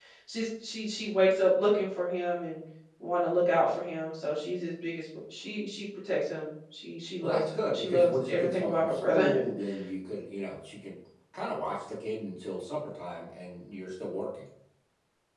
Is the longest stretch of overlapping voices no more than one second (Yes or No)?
No